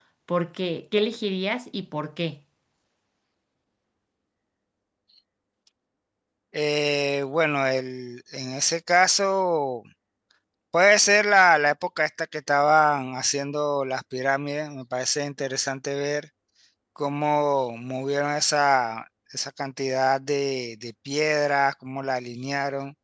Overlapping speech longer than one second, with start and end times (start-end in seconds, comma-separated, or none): none